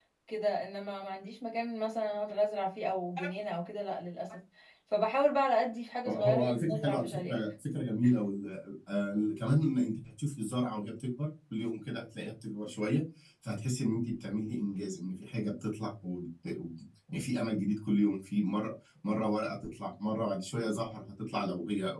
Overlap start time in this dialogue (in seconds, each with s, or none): 6.0 s